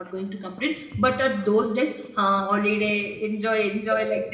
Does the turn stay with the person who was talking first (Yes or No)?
No